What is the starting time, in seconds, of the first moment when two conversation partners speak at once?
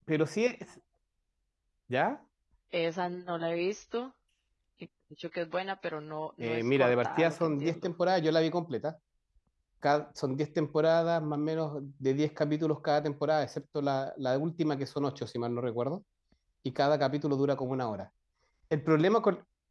6 s

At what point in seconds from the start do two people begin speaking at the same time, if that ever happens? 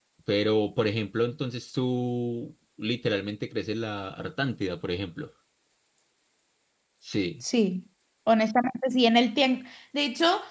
none

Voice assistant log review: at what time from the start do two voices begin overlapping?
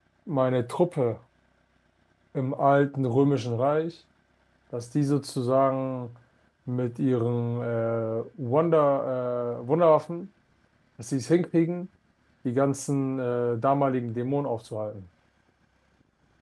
none

